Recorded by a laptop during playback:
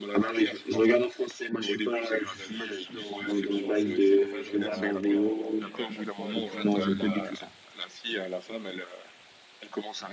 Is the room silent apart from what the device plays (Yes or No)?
No